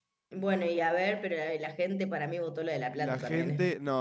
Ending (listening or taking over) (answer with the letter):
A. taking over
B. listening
A